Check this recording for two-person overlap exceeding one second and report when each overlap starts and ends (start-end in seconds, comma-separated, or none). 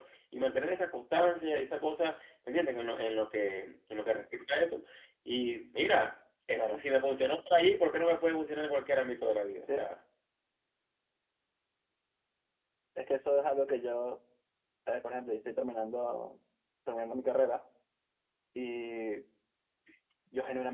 none